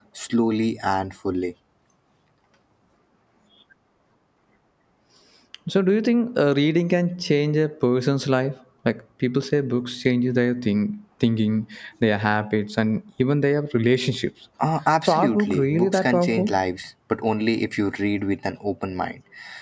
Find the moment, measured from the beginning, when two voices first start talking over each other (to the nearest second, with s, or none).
15 s